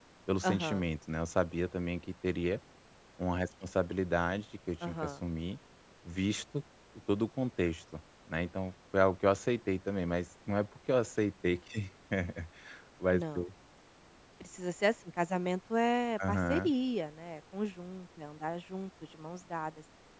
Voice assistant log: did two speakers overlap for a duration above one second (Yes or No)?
No